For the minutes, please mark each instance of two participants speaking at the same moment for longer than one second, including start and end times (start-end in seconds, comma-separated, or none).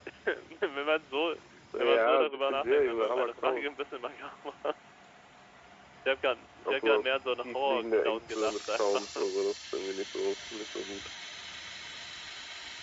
1.8-3.7, 6.6-9.1